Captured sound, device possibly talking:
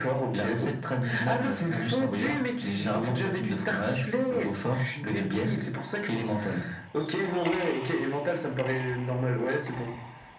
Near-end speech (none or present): none